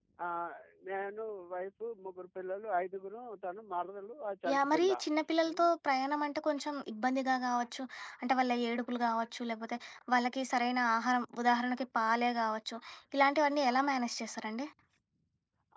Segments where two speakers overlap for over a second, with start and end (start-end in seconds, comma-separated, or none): none